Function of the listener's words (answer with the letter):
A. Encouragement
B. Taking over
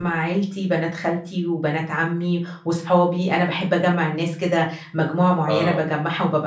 A